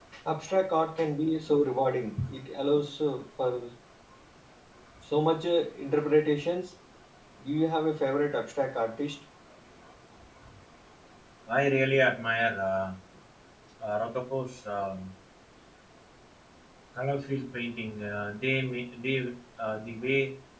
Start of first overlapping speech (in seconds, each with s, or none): none